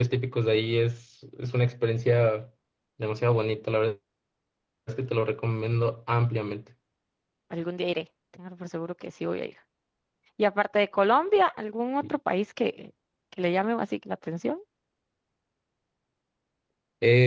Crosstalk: none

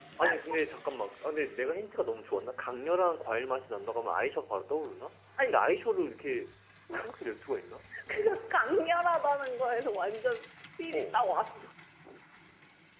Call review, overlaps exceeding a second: none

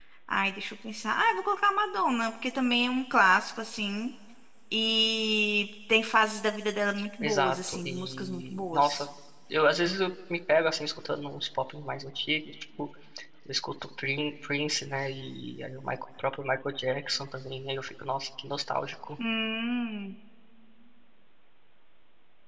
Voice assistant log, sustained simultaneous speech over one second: present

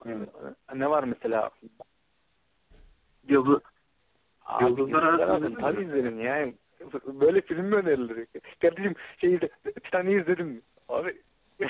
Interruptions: present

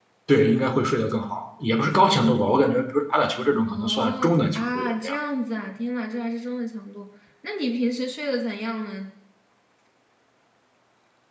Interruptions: present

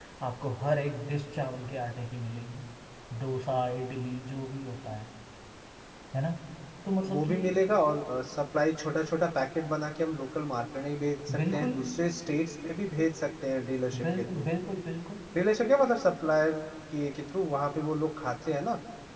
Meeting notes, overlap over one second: none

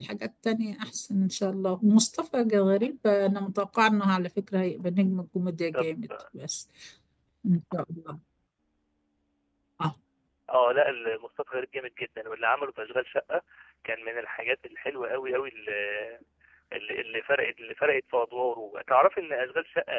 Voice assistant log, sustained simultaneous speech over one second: none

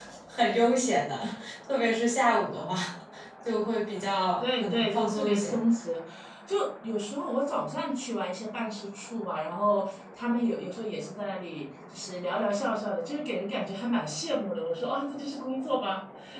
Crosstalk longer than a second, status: present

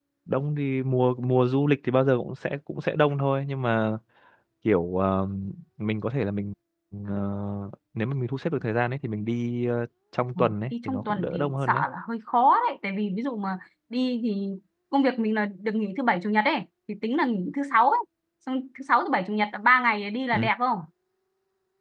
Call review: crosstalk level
present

